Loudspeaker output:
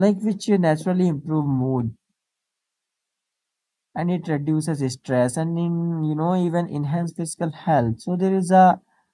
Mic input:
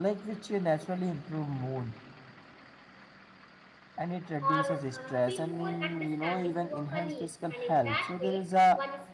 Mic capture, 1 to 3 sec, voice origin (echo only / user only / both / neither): echo only